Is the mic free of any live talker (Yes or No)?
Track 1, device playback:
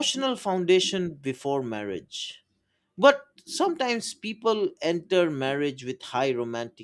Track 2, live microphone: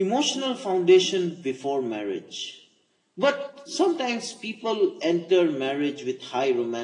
Yes